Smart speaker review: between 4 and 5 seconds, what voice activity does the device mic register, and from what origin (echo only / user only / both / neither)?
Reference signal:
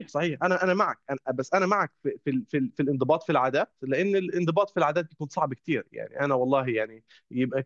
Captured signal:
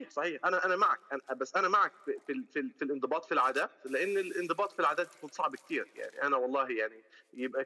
echo only